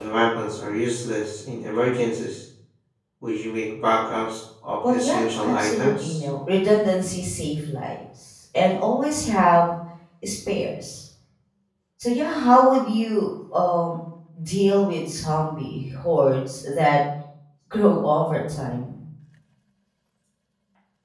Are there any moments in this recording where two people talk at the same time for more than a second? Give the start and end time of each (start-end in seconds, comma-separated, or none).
4.9-6.2